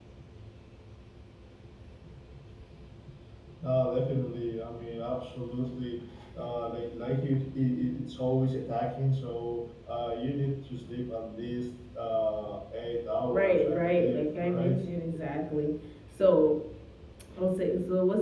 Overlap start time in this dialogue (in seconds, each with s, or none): 13.2 s